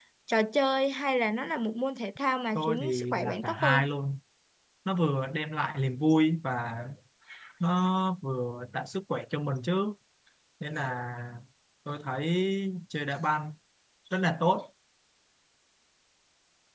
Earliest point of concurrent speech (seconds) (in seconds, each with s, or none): 2.5 s